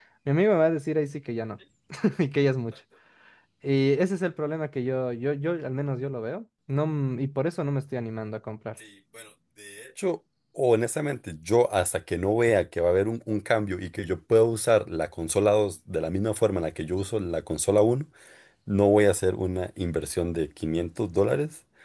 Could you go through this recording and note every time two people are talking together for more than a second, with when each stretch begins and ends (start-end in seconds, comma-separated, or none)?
none